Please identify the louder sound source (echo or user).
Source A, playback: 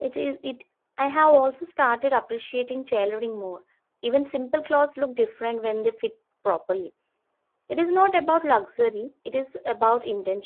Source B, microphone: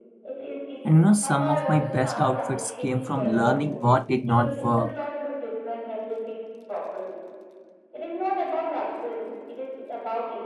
user